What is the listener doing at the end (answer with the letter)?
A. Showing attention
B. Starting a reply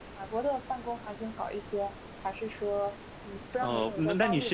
B